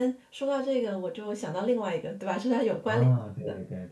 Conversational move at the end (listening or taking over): taking over